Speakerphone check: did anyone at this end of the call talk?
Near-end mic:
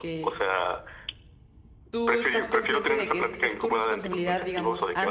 Yes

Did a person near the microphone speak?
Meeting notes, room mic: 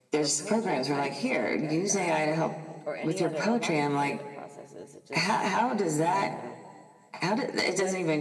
Yes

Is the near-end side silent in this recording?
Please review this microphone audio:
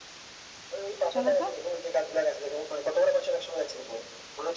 No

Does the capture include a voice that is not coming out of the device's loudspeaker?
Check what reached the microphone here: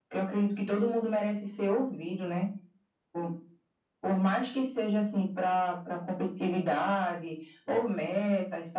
No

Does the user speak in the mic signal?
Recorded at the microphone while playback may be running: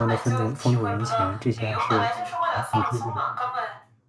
Yes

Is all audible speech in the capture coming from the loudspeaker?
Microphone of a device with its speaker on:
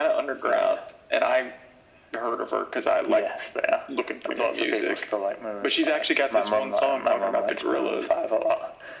Yes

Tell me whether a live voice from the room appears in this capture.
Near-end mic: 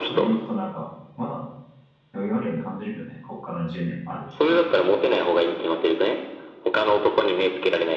Yes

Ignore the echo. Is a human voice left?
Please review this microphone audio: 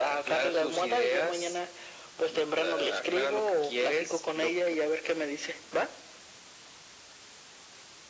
No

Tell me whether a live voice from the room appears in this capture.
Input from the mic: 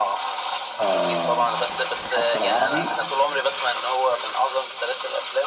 Yes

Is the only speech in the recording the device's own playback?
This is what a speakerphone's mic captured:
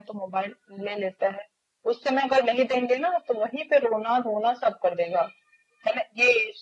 Yes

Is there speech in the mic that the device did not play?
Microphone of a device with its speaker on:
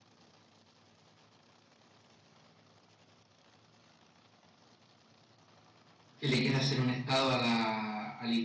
Yes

